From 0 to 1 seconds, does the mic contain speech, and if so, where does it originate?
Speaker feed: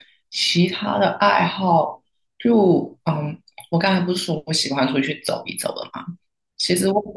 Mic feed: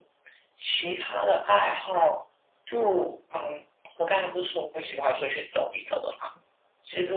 echo only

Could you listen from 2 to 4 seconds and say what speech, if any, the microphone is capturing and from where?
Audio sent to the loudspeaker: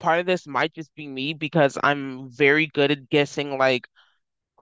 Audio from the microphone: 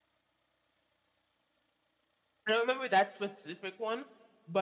user only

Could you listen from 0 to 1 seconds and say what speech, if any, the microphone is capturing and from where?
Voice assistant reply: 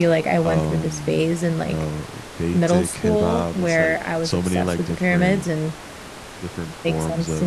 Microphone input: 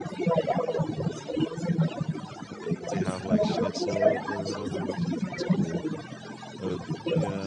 echo only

